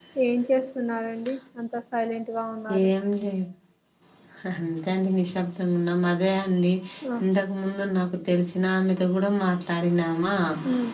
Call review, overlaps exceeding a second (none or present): none